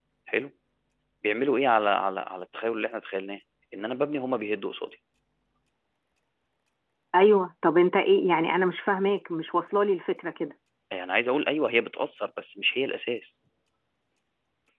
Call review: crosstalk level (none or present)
none